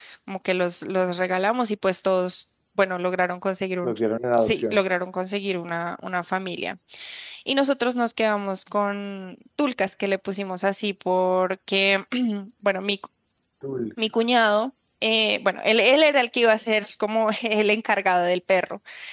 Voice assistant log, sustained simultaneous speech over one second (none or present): none